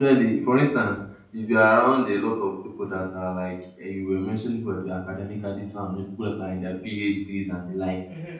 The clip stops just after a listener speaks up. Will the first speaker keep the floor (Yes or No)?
No